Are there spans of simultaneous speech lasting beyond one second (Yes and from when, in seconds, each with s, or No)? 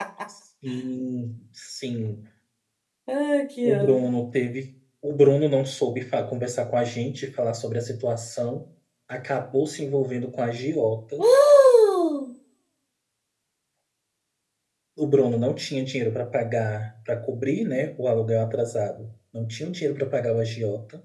No